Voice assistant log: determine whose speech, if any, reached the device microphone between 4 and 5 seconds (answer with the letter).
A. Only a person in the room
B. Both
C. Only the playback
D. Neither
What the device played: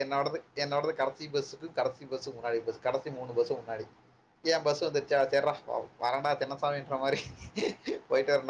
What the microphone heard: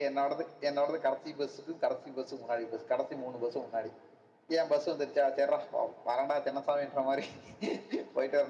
C